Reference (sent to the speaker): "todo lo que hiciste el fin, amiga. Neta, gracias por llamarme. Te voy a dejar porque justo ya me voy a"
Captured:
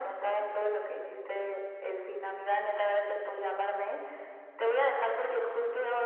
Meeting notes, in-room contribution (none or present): none